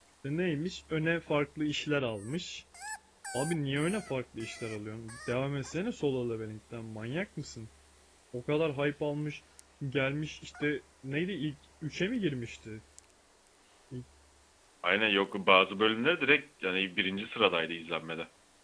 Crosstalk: none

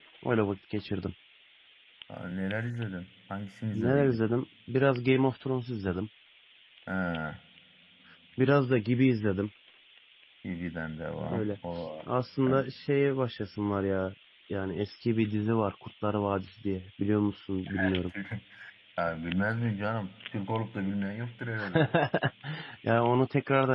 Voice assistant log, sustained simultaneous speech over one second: none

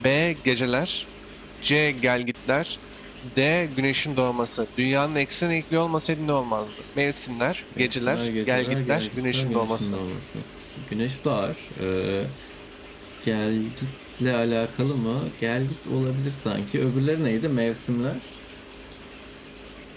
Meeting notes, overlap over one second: present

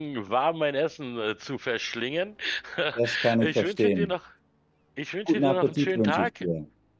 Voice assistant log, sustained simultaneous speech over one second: present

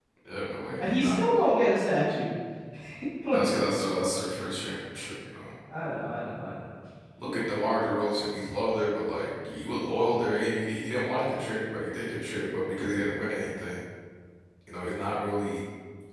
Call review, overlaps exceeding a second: none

